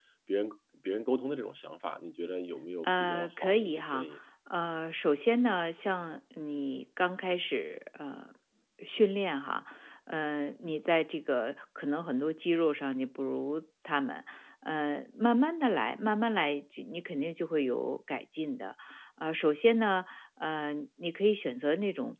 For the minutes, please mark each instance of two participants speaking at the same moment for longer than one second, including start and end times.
2.8-4.1

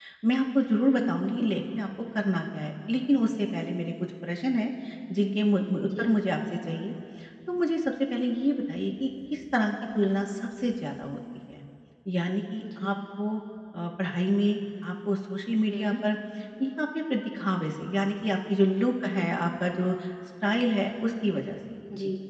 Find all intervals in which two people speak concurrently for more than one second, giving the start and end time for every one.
none

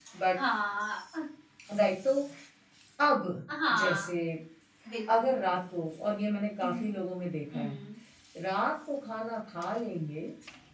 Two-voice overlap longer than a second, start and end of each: none

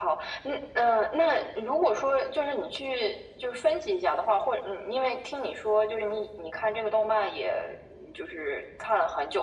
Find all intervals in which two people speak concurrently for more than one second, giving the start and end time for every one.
none

